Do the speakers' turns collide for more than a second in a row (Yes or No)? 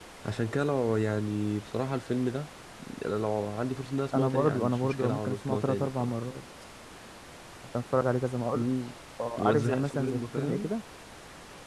Yes